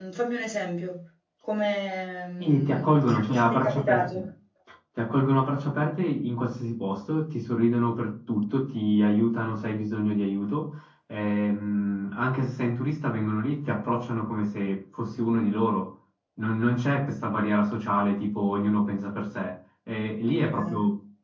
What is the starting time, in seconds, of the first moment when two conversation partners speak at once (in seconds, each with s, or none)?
2.4 s